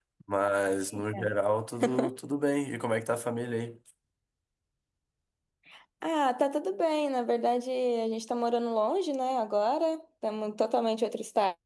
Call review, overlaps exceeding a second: none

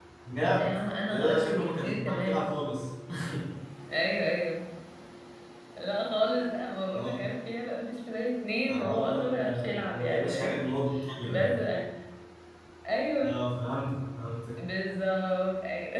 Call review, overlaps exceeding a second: present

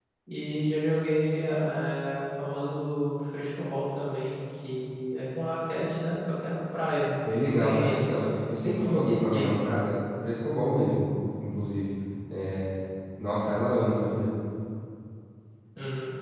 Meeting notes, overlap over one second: present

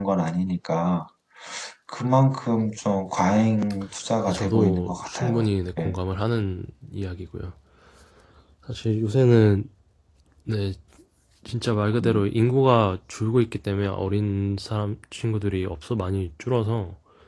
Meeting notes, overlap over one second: present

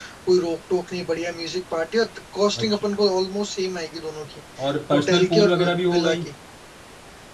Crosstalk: present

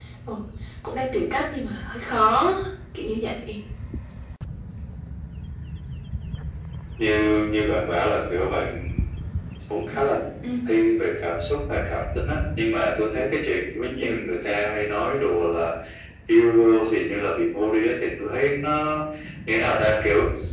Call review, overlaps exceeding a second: none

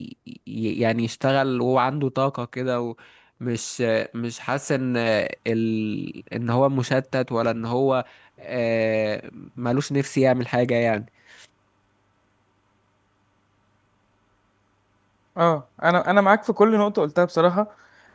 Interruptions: none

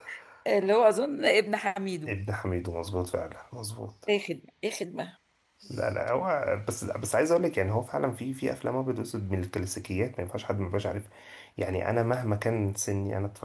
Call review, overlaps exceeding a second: none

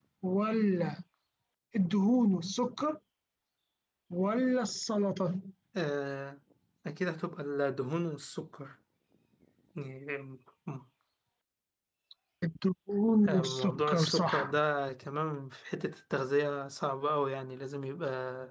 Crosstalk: present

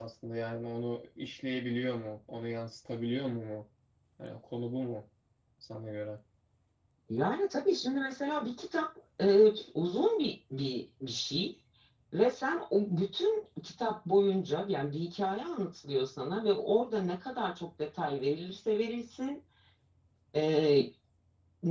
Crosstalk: none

